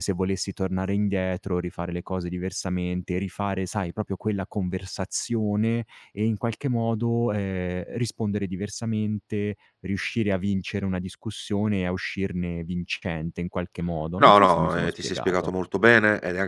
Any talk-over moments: Yes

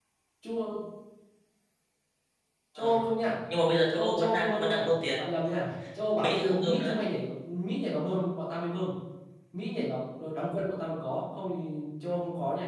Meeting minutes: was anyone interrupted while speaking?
Yes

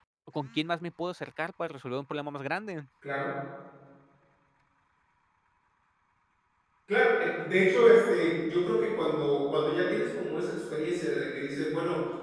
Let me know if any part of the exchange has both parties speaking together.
No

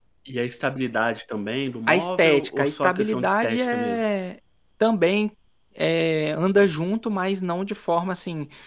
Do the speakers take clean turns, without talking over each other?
No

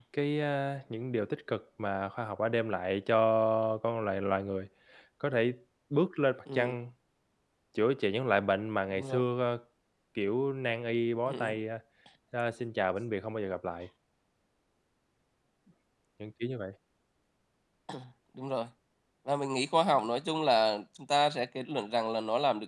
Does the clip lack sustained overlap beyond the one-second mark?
Yes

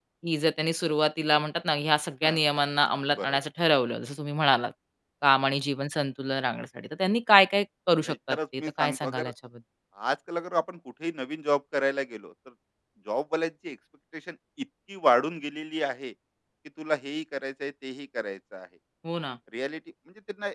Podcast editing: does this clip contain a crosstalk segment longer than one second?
Yes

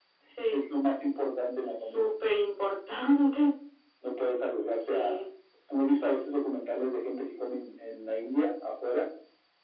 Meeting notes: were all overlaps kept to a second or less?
Yes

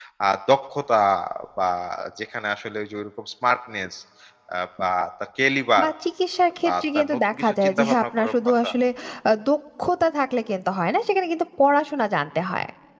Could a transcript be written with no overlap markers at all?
No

